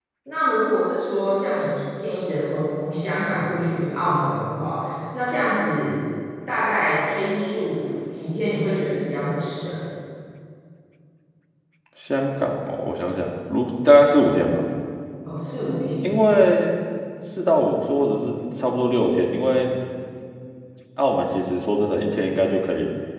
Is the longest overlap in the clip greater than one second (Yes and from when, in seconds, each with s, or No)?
No